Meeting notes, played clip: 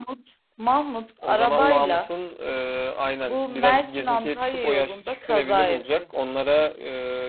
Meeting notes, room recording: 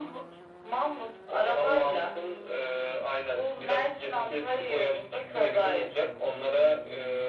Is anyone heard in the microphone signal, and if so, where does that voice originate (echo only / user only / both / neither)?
echo only